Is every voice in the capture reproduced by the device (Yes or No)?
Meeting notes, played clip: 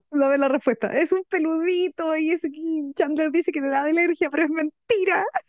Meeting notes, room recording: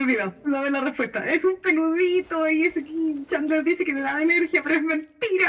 Yes